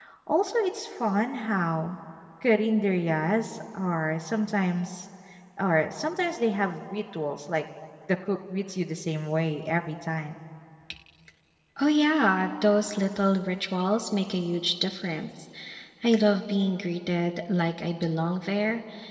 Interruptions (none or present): none